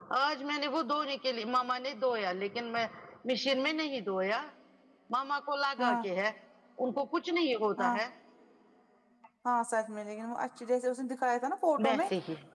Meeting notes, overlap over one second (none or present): none